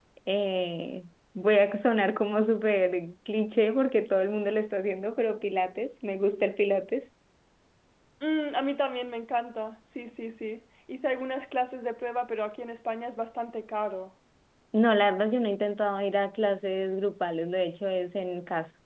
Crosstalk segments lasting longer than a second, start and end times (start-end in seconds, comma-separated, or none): none